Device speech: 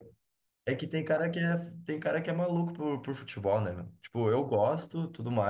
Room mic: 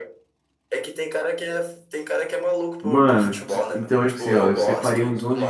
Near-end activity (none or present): present